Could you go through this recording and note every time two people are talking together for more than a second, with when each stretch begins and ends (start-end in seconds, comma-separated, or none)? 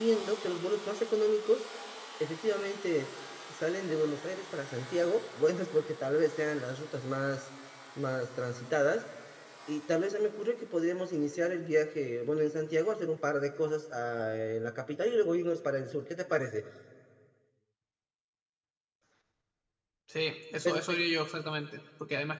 none